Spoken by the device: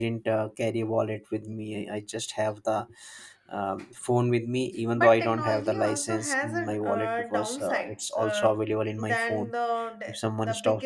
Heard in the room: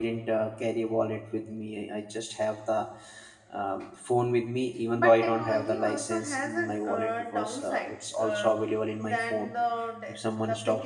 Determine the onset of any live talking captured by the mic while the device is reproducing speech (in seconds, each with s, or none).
none